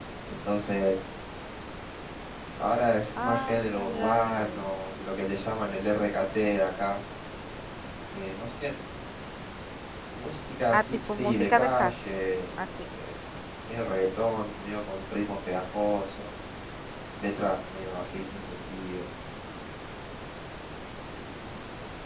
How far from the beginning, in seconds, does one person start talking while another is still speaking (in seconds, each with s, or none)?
3.2 s